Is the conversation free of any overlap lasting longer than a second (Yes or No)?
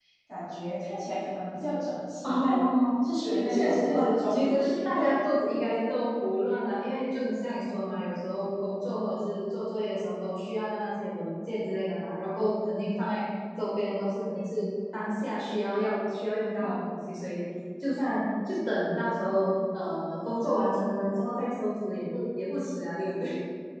No